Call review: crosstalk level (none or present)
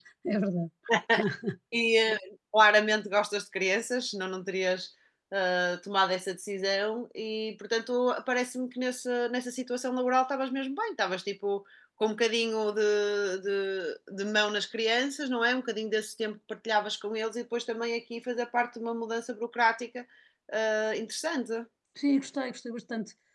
none